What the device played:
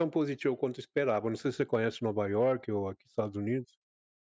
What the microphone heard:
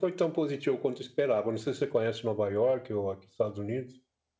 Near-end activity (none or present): none